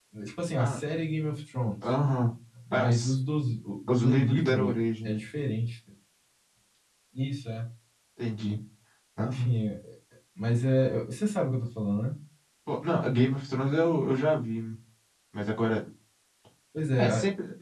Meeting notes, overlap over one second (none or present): present